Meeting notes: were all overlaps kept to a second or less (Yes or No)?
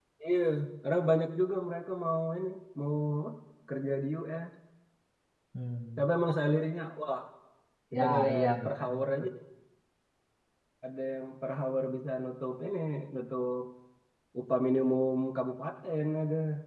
No